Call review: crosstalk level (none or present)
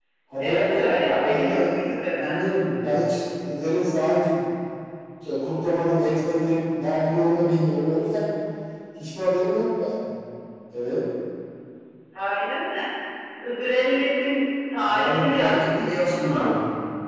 present